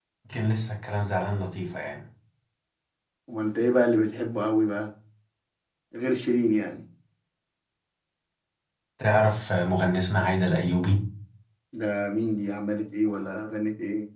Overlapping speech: No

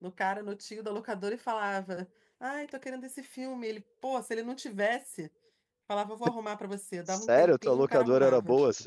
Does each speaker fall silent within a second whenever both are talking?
No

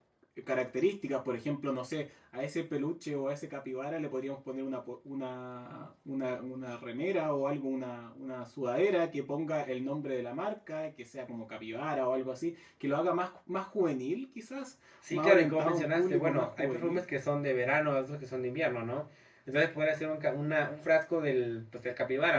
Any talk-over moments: Yes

